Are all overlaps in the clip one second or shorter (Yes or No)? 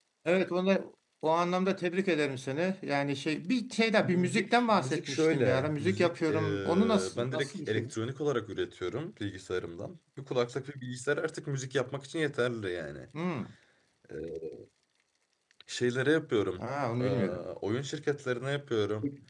No